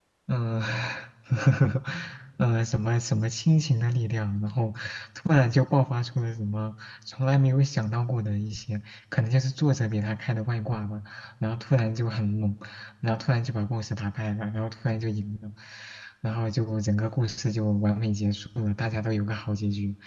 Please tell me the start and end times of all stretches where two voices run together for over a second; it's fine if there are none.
none

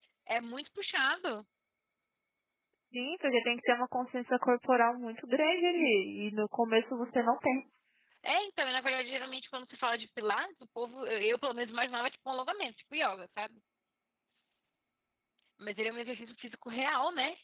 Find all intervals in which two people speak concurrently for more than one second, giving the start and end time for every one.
none

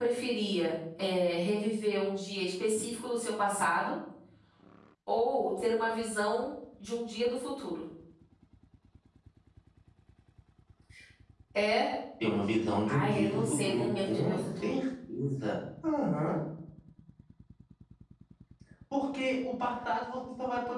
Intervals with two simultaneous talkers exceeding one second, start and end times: 12.9-14.7

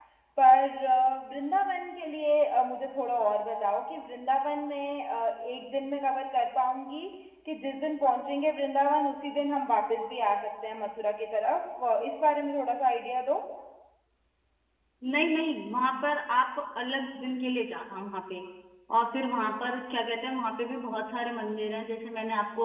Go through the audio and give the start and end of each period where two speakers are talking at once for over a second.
none

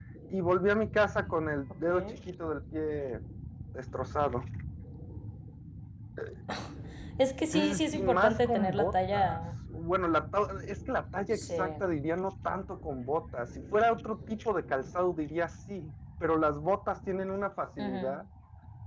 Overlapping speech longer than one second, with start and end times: 7.5-9.4

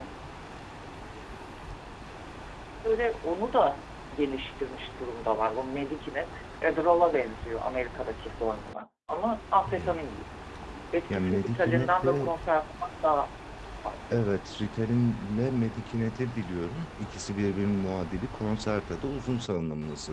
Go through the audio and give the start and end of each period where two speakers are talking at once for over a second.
11.1-12.3

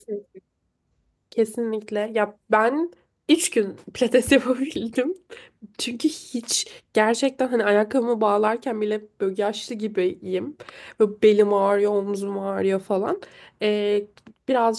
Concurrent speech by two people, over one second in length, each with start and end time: none

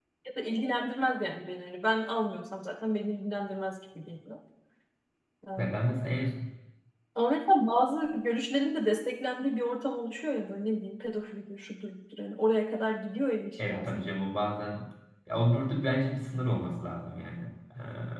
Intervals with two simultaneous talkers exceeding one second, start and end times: none

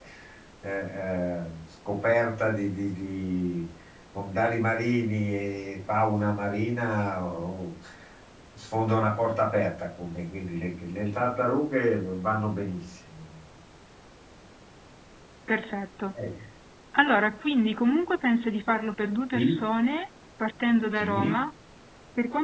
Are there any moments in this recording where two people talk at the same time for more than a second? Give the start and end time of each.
none

